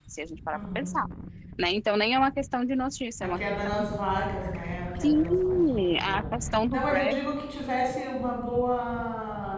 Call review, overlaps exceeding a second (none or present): present